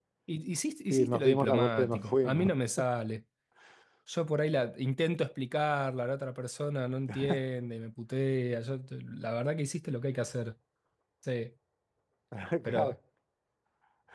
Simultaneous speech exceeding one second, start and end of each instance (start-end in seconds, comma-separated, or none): 0.9-2.5